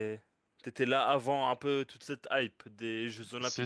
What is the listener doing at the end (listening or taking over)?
taking over